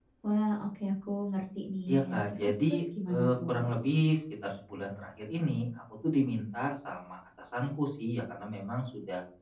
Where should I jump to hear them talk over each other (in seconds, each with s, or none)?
1.9 s